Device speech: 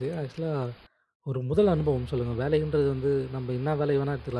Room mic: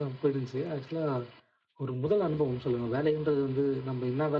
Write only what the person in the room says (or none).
none